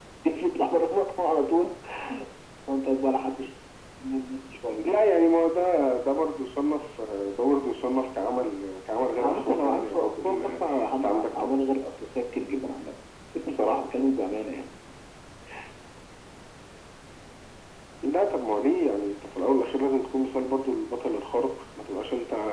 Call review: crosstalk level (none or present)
present